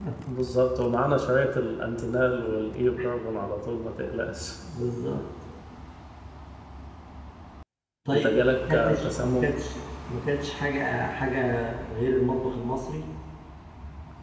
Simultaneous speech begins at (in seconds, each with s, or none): 8.1 s